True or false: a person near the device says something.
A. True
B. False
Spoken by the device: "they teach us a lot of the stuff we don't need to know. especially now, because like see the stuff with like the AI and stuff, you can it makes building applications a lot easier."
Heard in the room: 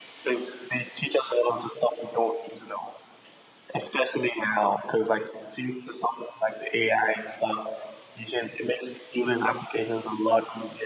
B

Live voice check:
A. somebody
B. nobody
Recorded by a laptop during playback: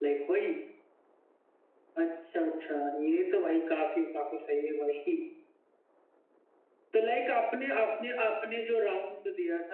B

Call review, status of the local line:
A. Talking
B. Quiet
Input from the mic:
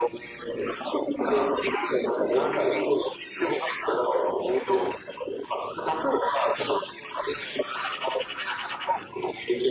B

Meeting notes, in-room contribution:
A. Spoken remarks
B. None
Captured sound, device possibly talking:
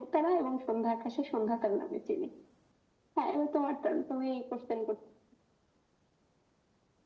B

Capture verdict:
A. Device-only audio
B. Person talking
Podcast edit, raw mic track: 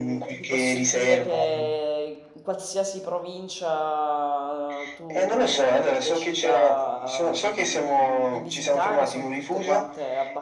B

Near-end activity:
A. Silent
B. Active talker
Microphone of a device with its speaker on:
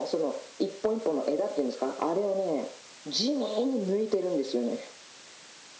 A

